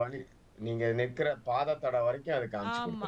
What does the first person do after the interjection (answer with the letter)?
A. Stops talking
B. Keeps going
A